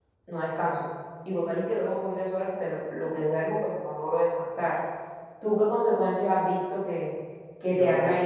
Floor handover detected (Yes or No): No